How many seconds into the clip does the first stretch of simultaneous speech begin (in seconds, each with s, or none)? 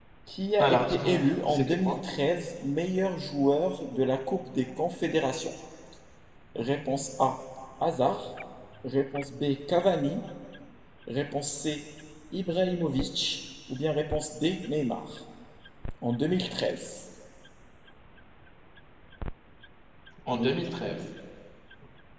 0.6 s